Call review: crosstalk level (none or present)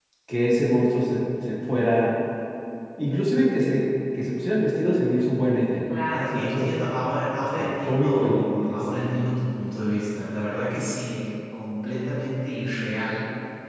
present